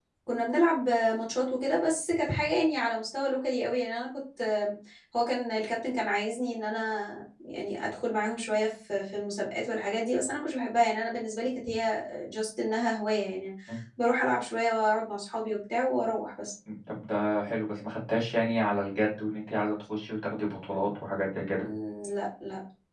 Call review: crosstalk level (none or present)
none